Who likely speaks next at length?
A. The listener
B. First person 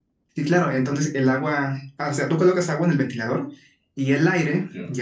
B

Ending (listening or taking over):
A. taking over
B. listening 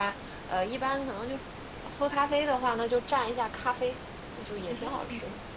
A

